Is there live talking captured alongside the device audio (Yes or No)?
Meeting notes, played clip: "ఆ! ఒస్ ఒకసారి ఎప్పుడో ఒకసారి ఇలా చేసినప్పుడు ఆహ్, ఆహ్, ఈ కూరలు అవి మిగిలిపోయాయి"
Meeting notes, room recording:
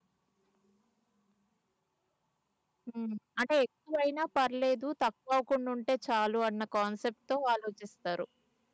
Yes